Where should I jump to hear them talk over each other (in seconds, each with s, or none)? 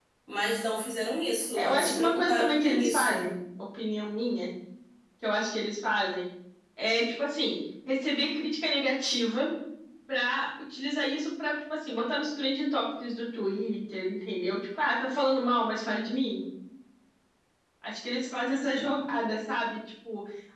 1.5 s